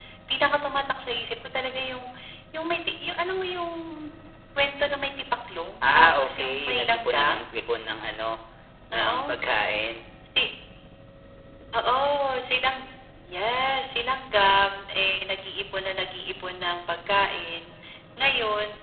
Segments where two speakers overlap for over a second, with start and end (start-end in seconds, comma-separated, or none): 5.8-7.5